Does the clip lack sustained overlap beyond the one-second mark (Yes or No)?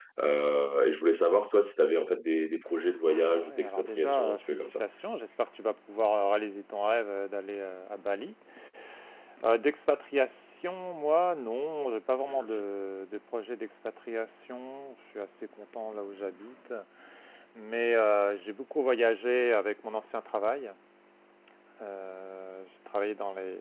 No